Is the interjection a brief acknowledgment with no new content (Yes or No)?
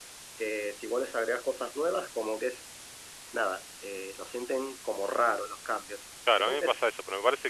No